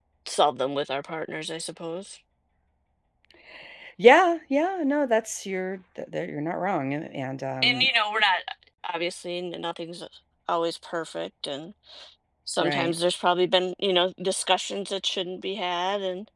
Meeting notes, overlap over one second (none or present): none